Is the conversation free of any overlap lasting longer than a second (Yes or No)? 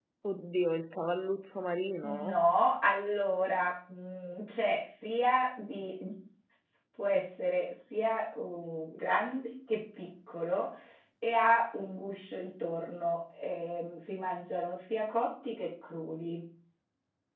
Yes